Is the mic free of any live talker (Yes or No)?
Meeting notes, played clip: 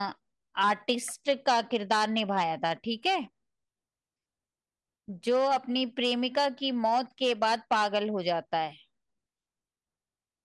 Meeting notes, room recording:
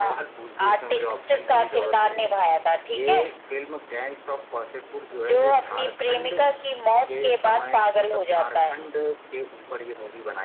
No